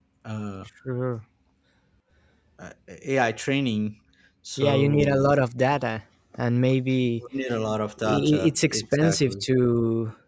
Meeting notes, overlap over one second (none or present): present